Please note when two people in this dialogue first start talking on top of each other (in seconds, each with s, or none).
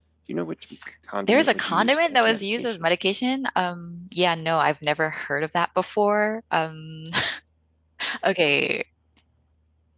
1.2 s